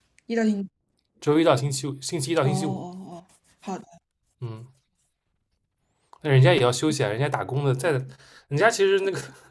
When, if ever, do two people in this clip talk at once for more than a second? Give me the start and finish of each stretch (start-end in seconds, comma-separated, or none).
none